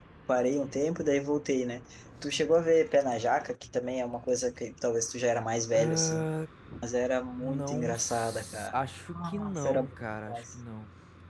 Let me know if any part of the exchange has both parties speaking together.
Yes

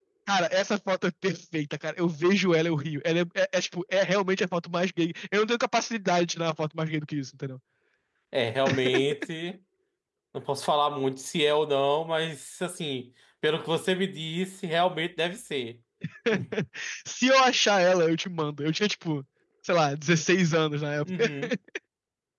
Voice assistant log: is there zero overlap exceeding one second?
Yes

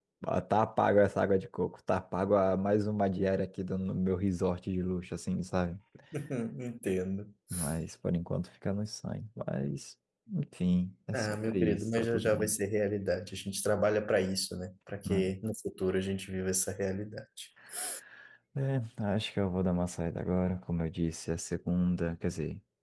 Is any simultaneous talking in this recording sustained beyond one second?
Yes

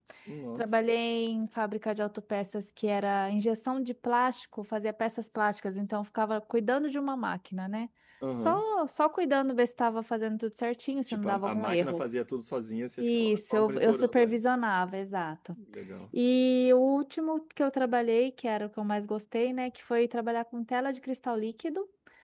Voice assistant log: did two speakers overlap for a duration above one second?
Yes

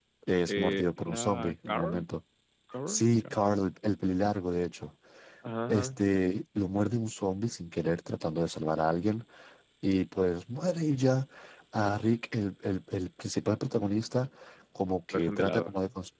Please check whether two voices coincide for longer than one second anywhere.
Yes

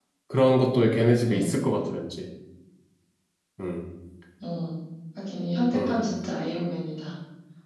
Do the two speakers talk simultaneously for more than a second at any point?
No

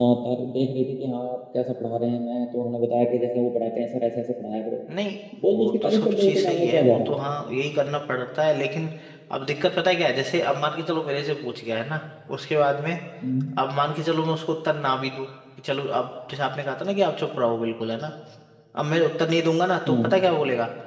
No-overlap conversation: No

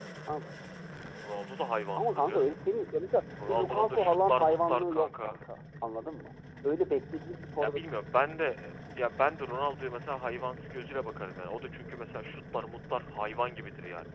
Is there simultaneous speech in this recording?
Yes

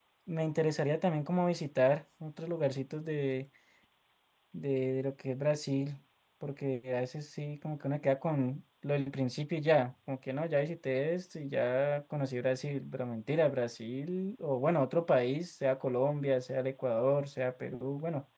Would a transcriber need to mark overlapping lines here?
No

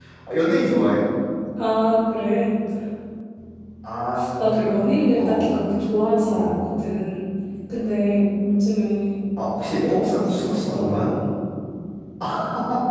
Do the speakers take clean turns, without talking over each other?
No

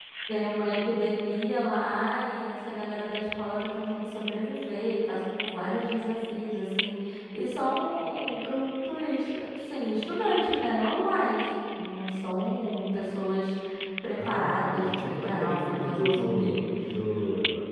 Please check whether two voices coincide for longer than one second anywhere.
Yes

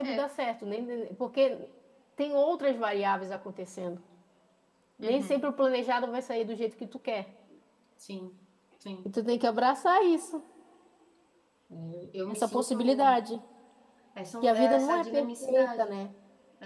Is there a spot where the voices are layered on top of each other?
Yes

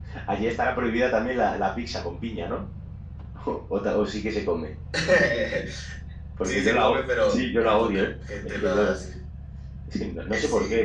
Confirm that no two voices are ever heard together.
No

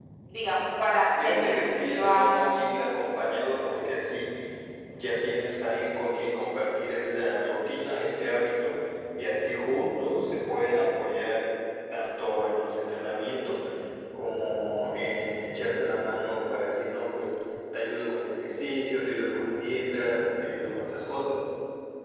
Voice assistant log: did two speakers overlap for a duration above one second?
Yes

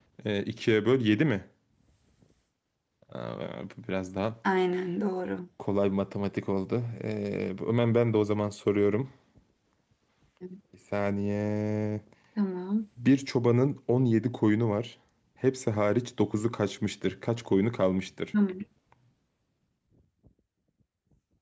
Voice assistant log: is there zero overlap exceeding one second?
Yes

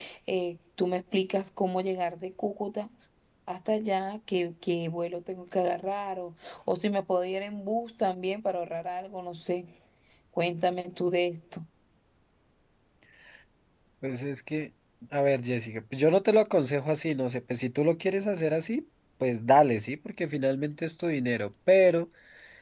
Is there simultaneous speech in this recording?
No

